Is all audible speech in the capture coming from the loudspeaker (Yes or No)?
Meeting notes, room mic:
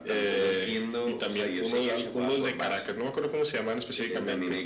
Yes